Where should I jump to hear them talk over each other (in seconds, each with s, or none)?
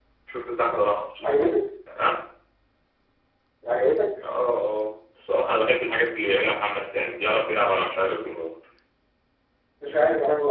none